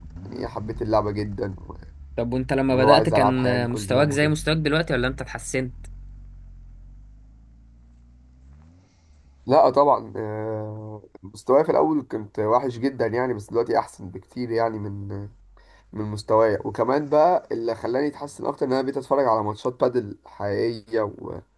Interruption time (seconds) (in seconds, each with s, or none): 2.7 s